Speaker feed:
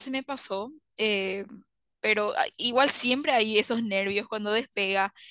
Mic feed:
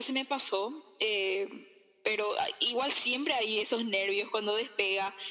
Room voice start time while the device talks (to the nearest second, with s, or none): none